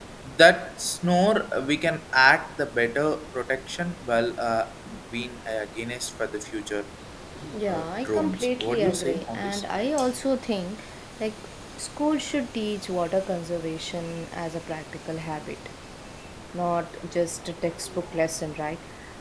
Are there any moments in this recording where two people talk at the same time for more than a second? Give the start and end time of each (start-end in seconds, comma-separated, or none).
7.7-9.6